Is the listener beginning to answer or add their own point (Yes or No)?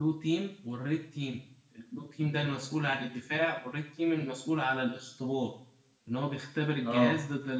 No